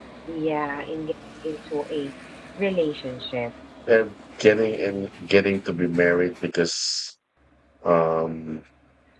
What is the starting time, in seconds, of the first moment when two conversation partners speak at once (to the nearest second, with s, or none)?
none